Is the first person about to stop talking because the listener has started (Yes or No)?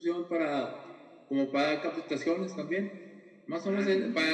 No